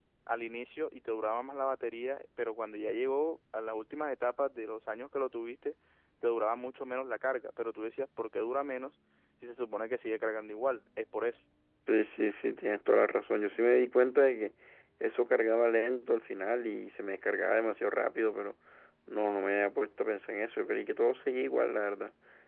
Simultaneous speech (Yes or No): No